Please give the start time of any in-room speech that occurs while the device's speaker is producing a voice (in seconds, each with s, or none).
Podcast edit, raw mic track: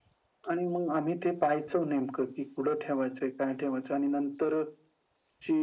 none